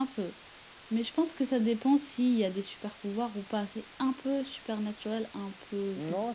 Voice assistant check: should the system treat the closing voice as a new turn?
Yes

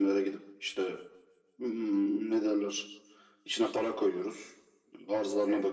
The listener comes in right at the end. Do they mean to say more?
No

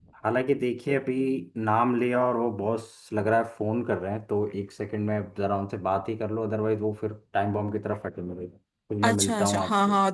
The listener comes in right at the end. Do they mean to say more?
Yes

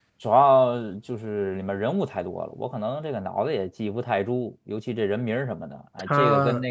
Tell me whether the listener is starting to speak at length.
No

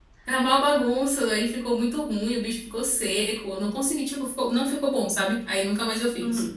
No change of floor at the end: No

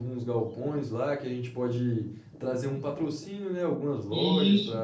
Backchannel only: Yes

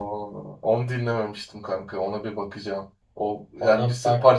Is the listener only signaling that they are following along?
Yes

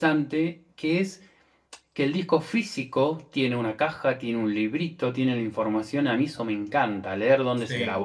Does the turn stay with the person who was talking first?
Yes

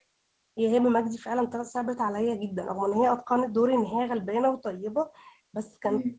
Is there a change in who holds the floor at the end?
No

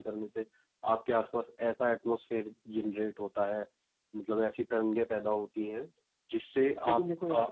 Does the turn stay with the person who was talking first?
No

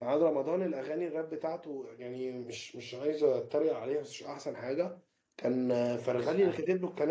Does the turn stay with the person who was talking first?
Yes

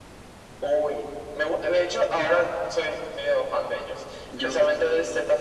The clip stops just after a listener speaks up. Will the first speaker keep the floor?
Yes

